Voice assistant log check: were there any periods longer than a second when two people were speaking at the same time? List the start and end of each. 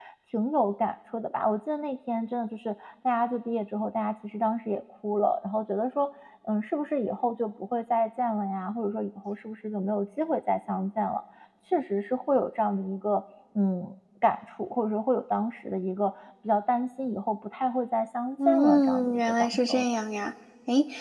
18.4-19.9

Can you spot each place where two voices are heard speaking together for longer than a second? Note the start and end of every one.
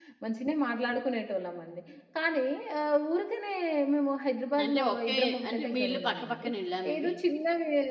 4.6-6.5

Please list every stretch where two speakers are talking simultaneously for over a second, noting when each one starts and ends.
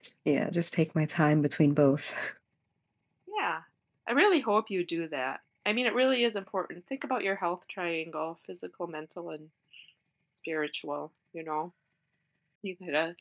none

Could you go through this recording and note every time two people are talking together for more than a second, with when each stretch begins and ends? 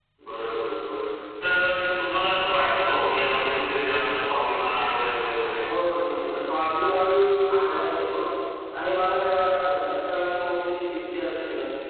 none

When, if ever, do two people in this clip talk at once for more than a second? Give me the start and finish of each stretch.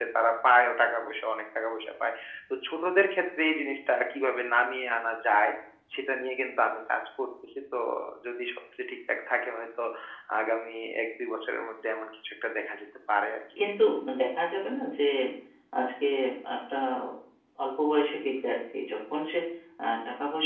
none

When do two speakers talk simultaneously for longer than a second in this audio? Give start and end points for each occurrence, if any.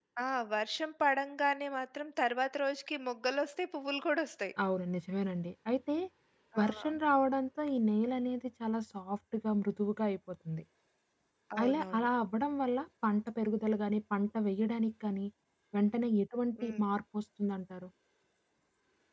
none

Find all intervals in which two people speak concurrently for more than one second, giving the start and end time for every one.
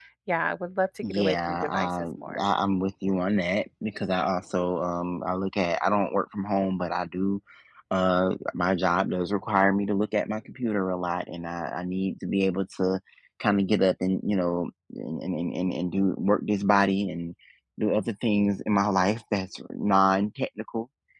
1.0-2.4

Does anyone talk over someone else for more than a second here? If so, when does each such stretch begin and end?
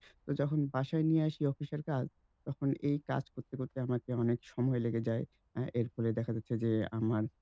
none

